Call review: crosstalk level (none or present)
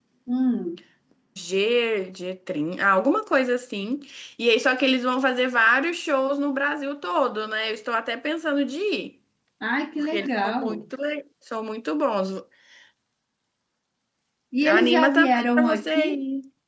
present